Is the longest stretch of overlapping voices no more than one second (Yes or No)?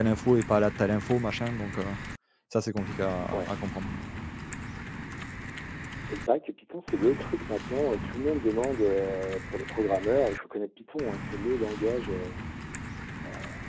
Yes